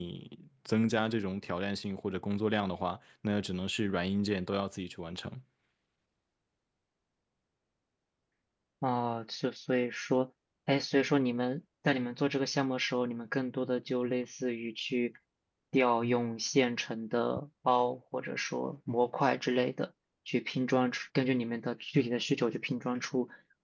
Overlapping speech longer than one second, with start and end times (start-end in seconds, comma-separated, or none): none